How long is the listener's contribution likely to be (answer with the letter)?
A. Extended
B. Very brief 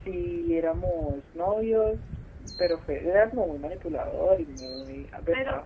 A